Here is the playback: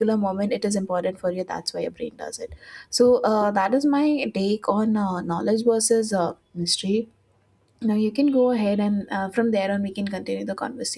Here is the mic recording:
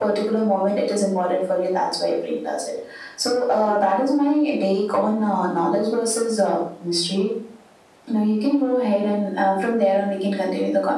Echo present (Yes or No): Yes